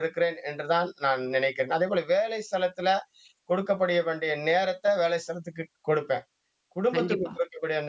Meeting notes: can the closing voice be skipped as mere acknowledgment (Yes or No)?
Yes